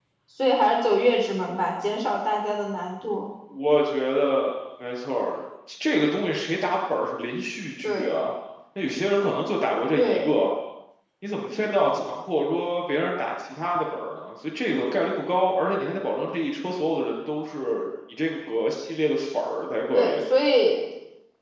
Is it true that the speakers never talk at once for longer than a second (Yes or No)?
Yes